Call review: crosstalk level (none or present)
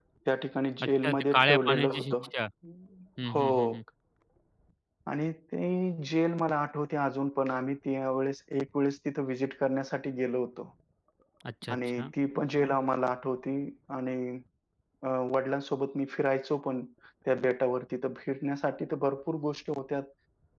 present